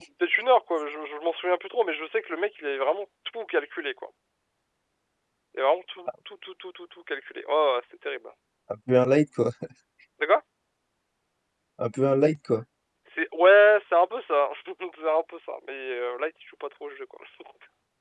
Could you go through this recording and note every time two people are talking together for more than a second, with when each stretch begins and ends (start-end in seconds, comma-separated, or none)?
none